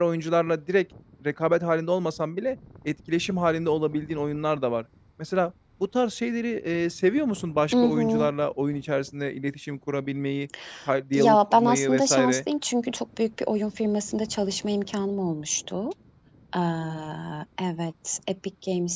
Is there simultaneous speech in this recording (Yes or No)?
Yes